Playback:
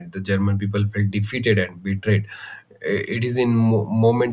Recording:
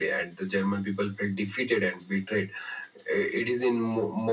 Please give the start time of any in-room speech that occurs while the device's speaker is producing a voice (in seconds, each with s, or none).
none